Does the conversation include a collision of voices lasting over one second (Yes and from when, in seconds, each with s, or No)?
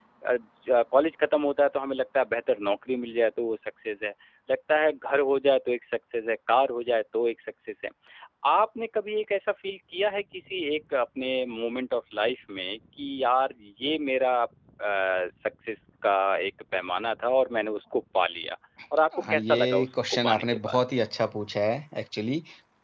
Yes, from 19.1 s